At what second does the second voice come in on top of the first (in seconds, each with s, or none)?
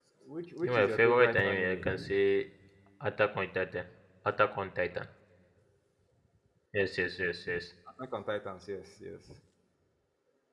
0.6 s